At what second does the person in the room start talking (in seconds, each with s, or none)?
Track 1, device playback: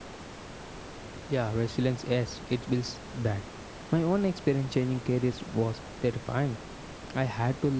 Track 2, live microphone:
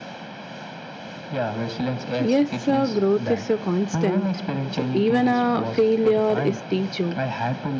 2.2 s